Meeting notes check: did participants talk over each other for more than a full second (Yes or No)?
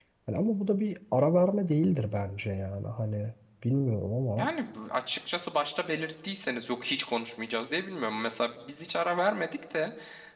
No